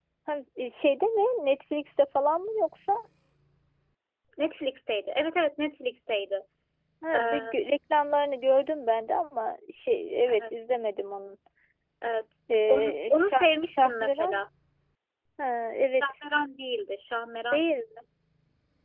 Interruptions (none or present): present